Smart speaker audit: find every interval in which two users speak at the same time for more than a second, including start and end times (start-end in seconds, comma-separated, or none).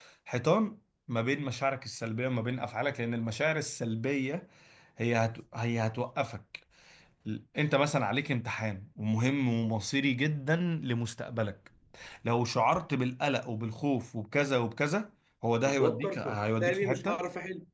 15.7-17.2